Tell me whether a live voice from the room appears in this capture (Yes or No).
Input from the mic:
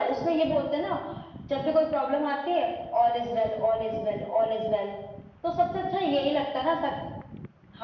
No